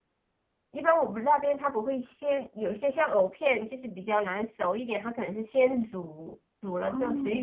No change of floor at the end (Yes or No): Yes